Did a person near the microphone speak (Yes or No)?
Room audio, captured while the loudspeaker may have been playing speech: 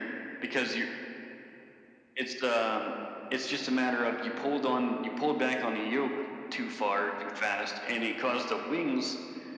No